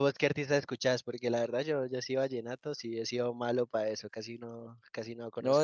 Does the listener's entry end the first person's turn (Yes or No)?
Yes